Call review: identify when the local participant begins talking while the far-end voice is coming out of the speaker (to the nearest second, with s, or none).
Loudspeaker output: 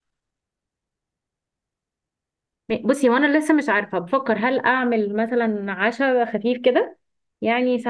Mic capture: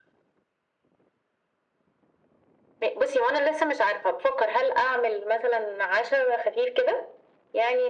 none